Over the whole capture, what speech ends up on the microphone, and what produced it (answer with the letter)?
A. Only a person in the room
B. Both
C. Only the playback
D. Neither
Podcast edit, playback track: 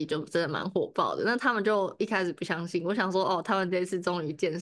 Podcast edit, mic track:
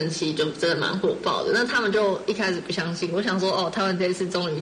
C